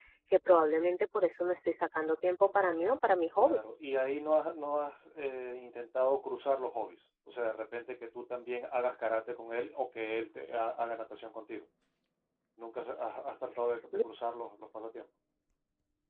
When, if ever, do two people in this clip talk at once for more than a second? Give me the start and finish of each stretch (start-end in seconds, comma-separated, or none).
none